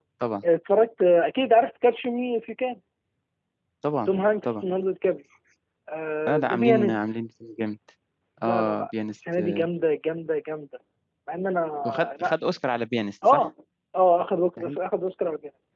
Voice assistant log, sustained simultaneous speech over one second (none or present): present